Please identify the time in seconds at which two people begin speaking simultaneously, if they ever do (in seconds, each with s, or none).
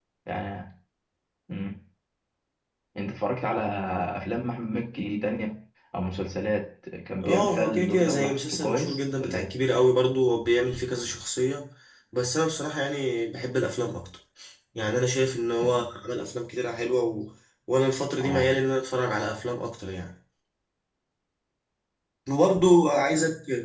7.2 s